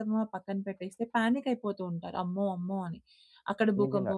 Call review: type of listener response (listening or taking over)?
listening